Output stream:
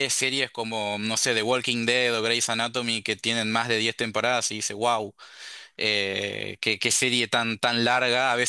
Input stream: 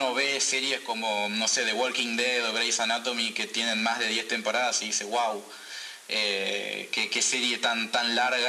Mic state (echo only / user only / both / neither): echo only